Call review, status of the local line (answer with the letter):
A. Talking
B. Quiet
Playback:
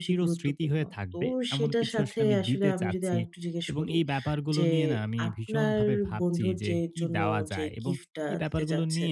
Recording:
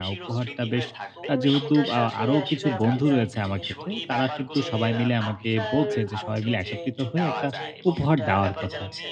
A